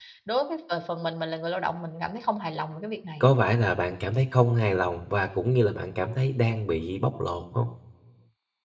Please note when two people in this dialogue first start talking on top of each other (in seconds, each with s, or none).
none